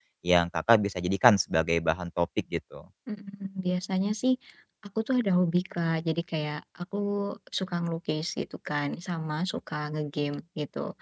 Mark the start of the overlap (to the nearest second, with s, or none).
none